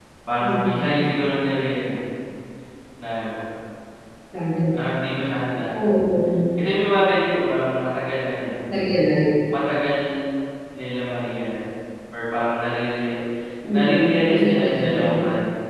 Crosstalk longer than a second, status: present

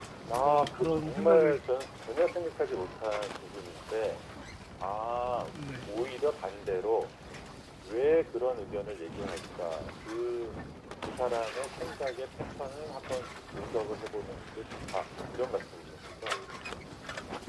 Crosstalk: present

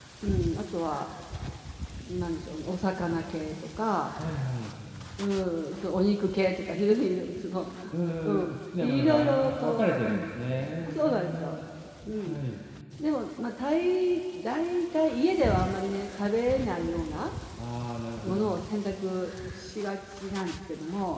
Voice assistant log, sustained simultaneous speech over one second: present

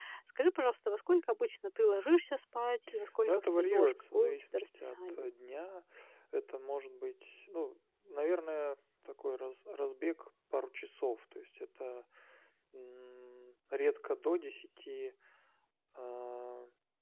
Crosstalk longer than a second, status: present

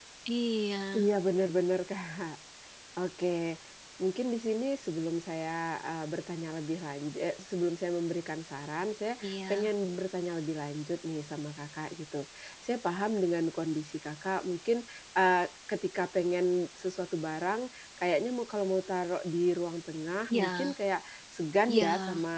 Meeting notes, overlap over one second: none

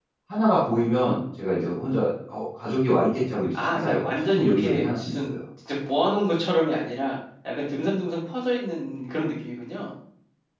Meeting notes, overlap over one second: present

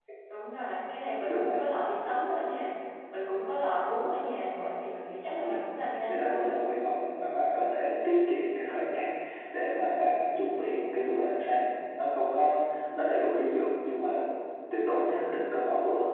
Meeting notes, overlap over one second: none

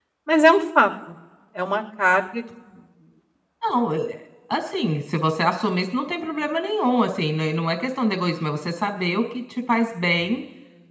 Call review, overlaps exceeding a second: none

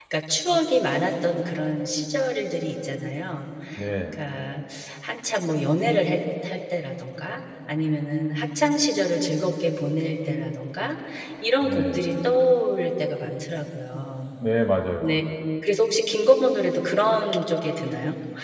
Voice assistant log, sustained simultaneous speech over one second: none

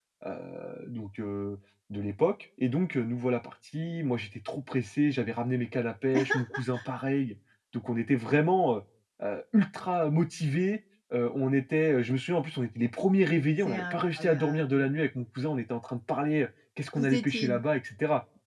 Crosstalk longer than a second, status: present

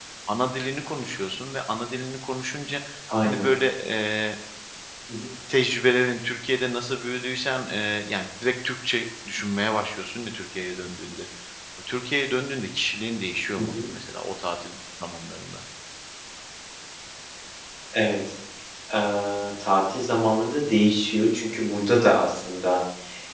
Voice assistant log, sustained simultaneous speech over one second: none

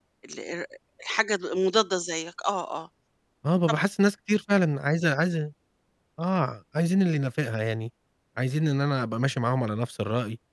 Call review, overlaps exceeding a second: none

